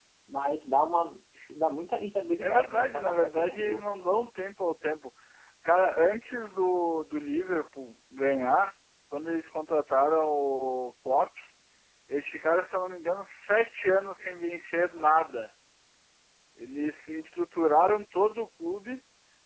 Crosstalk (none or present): present